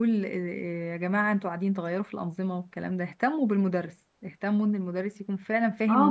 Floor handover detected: Yes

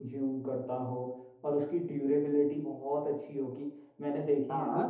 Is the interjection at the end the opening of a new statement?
Yes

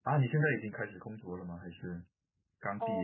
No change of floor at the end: No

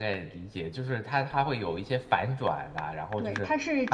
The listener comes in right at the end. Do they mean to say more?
Yes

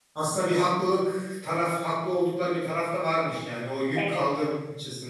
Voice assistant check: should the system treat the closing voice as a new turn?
No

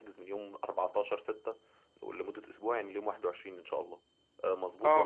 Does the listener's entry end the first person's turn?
Yes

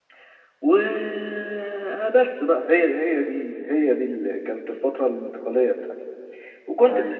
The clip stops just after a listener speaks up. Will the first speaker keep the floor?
Yes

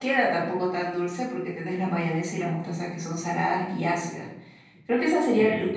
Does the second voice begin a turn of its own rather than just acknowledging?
No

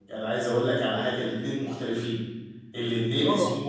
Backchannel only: Yes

